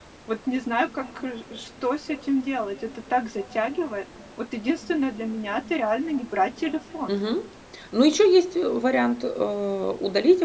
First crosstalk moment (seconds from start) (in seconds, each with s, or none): none